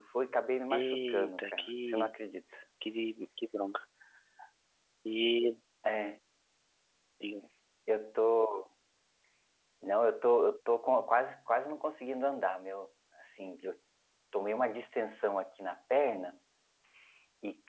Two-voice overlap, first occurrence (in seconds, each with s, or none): 0.7 s